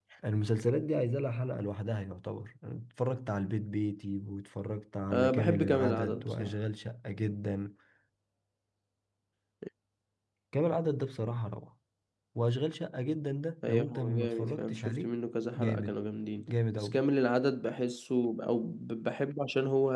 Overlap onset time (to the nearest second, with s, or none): 5 s